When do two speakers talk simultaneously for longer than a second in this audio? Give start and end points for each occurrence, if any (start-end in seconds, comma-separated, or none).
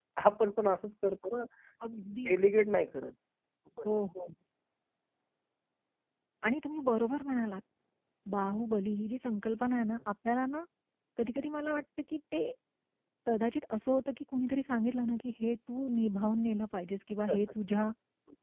none